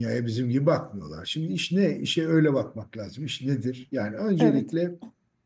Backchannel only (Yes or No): Yes